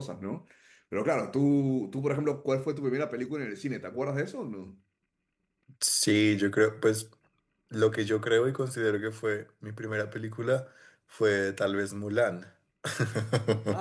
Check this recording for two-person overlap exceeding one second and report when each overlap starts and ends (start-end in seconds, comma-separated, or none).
none